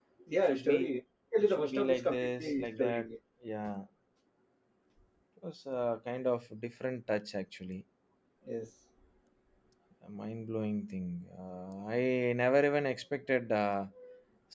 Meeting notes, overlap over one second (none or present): present